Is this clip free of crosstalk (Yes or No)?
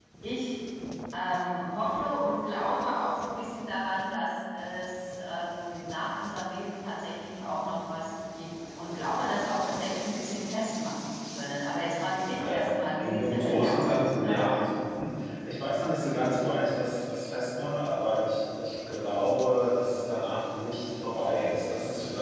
No